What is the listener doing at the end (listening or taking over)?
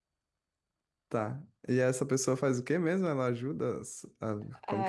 taking over